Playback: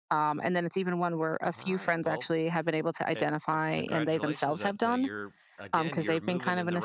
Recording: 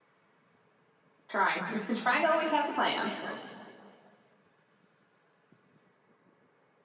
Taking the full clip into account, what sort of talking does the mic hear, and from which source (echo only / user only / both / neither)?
user only